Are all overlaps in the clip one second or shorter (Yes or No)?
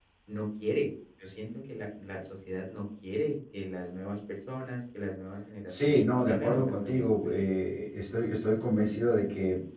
No